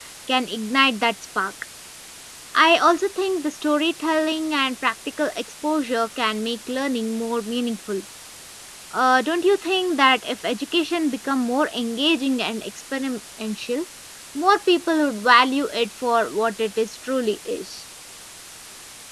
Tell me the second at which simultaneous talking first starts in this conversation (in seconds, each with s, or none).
none